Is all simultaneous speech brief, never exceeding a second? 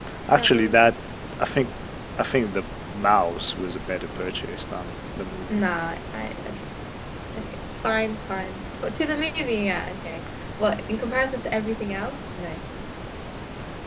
Yes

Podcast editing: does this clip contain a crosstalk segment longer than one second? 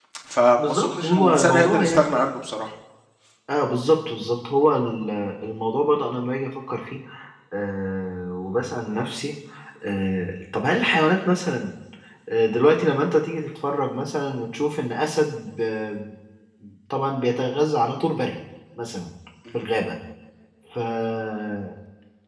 Yes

